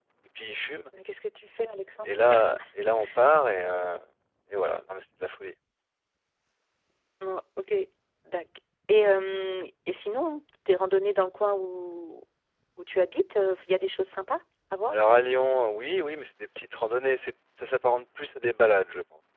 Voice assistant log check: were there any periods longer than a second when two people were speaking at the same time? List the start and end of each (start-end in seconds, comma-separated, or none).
none